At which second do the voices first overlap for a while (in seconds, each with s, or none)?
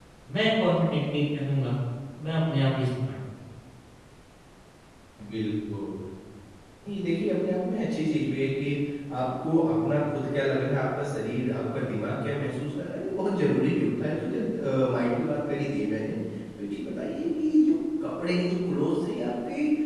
none